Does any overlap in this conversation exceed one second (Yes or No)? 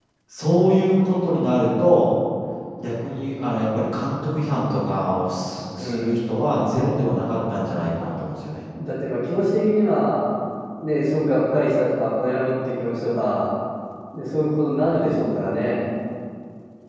No